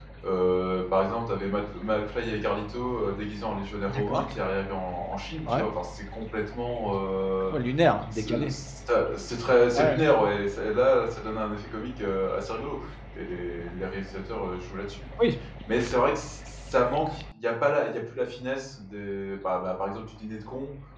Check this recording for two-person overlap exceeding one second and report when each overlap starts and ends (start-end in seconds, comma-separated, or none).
none